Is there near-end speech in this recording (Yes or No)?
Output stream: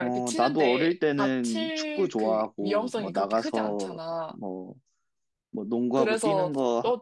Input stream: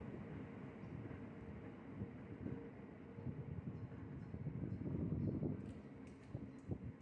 No